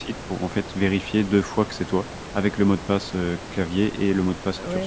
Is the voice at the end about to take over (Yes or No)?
Yes